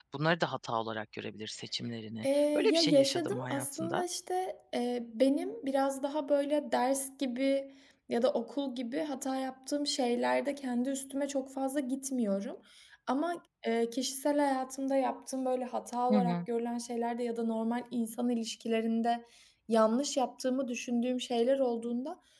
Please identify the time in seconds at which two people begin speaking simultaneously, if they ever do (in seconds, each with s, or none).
2.2 s